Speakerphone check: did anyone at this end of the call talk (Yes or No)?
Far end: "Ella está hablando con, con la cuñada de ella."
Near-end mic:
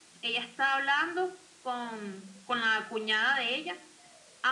No